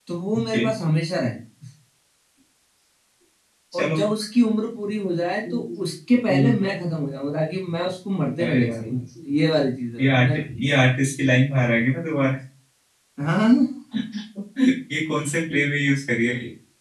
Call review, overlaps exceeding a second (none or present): none